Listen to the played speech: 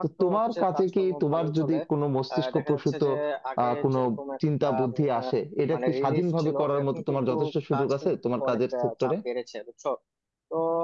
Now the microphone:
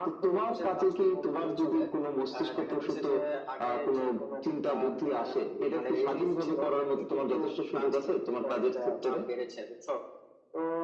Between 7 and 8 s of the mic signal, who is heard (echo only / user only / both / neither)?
echo only